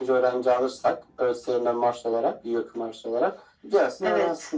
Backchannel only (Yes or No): No